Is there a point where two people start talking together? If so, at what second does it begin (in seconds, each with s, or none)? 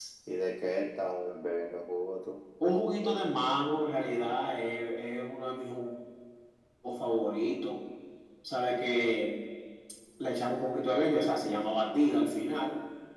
none